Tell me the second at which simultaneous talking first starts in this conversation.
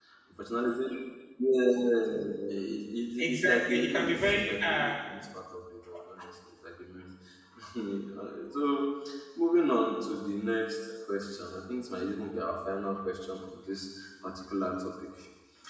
3.2 s

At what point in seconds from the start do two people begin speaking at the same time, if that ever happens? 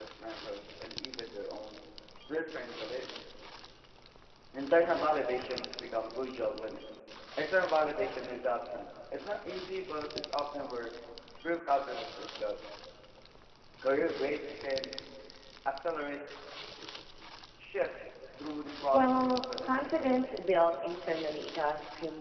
18.9 s

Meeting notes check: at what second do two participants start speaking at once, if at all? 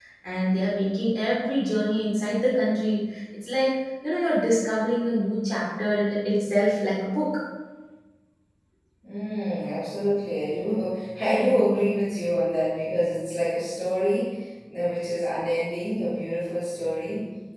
none

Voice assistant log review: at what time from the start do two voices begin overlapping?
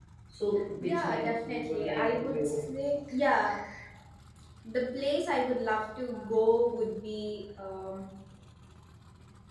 0.8 s

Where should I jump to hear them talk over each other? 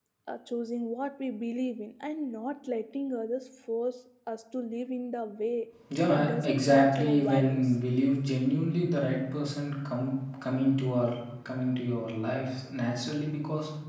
5.9 s

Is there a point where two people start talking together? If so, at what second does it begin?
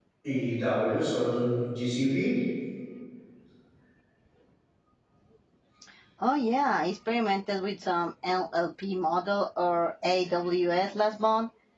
none

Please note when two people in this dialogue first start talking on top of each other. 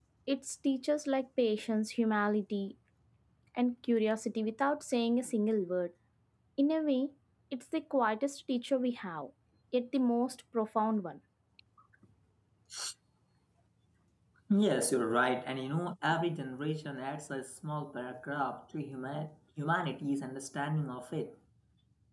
none

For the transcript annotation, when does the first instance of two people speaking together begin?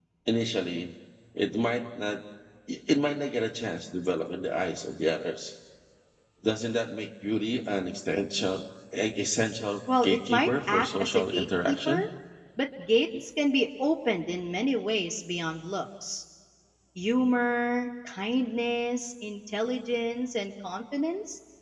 9.9 s

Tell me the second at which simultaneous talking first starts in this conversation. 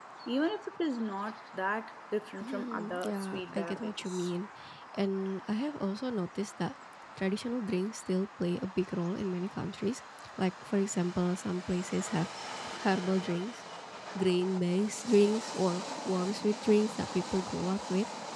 2.4 s

